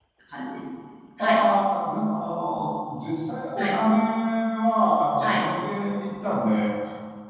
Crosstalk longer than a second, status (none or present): none